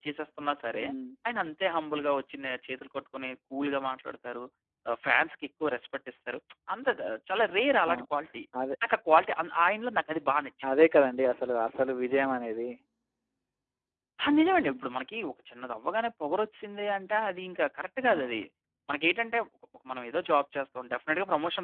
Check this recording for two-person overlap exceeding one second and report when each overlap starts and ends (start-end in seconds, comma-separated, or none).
none